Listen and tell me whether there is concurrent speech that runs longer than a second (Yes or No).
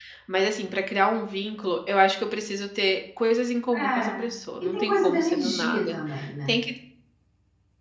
Yes